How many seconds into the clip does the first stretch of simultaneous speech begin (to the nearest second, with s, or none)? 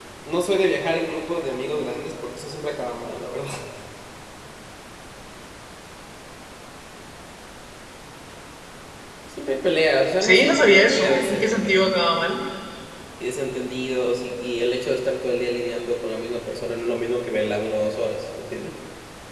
10 s